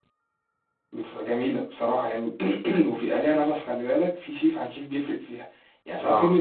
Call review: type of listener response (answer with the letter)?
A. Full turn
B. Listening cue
B